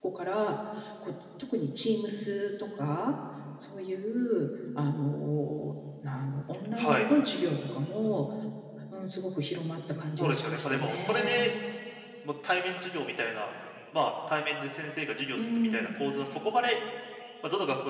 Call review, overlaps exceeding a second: present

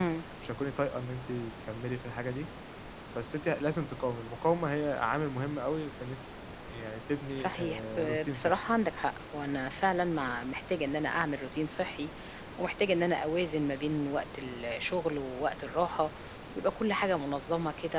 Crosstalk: present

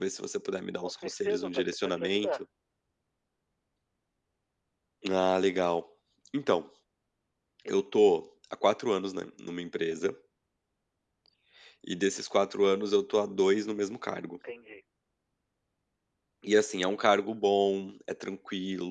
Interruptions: present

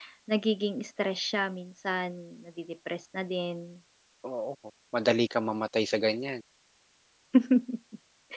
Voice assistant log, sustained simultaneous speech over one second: none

